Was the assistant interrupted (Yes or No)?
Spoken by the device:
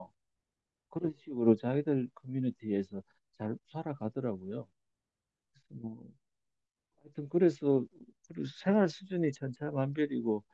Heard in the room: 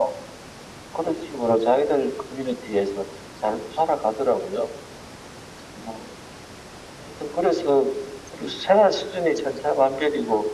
No